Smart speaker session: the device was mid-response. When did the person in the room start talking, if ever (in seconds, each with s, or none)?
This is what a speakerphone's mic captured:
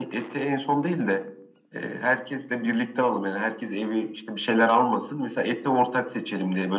none